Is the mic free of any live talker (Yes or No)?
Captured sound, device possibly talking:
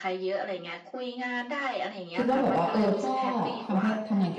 No